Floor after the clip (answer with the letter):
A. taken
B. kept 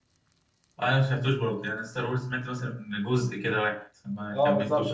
A